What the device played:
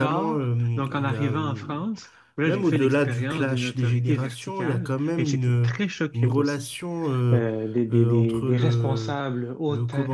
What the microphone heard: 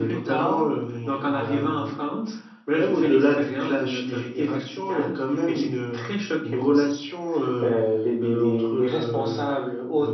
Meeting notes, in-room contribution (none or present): none